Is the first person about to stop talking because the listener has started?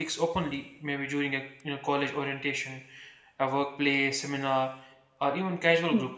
No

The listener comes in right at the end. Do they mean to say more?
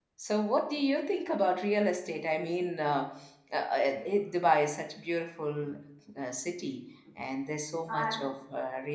No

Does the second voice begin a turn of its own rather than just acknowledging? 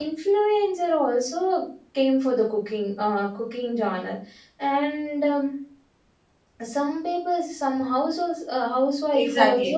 Yes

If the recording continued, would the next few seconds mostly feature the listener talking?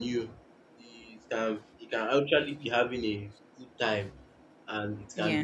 No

